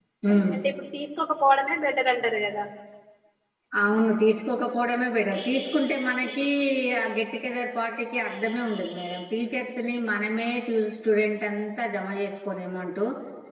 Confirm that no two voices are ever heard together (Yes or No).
Yes